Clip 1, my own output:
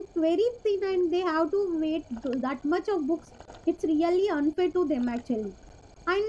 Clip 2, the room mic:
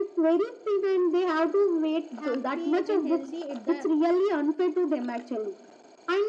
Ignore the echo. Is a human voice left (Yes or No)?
Yes